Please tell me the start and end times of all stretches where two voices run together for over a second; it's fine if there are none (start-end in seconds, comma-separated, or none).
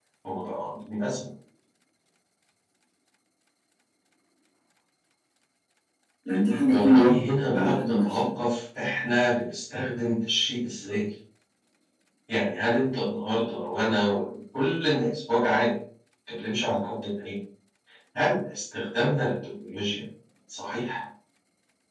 6.7-8.0